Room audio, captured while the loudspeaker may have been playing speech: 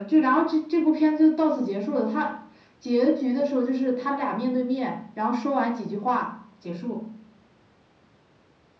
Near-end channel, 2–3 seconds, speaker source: echo only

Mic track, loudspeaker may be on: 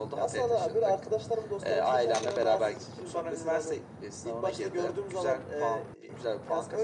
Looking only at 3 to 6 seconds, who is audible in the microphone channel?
echo only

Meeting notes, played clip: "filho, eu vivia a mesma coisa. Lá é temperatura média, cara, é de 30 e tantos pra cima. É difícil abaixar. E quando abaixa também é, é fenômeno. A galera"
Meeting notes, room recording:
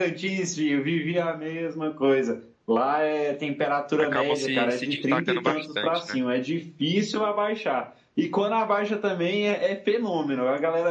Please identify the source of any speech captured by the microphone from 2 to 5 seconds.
both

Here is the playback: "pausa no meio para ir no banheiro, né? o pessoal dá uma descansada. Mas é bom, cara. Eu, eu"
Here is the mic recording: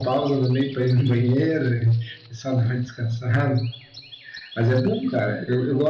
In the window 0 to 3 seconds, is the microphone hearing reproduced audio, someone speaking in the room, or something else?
echo only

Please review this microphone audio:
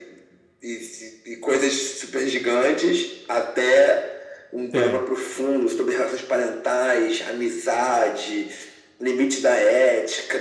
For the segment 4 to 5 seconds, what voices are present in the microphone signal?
both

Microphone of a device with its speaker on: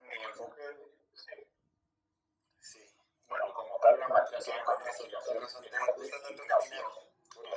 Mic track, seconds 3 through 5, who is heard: echo only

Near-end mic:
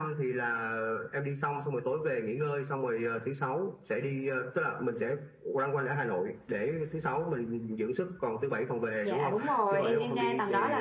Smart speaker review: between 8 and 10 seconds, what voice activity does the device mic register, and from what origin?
both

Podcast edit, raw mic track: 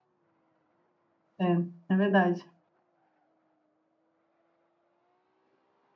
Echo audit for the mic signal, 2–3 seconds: user only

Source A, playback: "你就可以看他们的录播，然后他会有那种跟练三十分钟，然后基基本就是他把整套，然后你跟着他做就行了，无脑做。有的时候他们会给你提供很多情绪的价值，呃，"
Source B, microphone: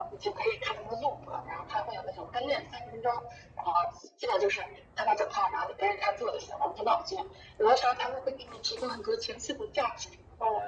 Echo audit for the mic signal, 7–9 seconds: echo only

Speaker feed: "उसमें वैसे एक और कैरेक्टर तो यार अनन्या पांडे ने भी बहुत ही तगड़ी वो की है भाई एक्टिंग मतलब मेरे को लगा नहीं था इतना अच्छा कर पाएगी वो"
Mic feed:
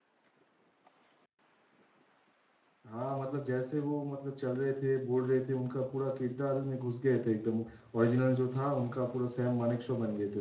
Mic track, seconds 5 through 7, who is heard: user only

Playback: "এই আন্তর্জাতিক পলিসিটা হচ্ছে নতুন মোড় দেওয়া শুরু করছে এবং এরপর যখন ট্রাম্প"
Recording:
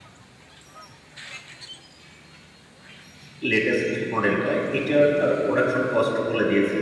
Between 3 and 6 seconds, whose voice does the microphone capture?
user only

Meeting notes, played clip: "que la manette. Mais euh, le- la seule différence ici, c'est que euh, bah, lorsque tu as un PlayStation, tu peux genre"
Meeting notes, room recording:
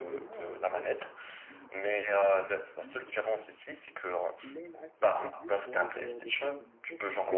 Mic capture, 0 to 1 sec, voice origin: both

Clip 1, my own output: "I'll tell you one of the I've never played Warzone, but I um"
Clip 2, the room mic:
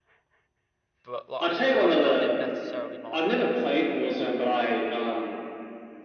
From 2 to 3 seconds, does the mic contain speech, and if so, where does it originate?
both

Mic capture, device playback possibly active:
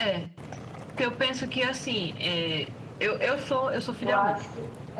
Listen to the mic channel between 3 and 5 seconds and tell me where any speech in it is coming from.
both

